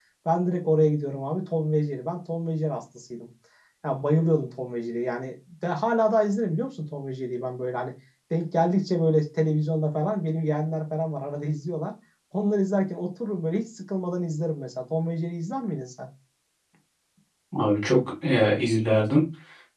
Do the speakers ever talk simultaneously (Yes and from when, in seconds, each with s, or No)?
No